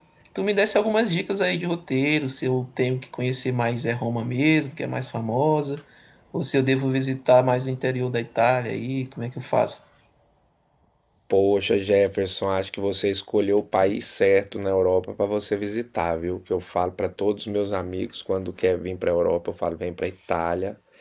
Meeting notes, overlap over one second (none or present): none